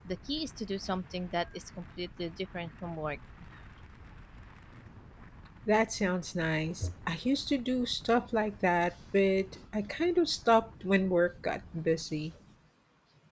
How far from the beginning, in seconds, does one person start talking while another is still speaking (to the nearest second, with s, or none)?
none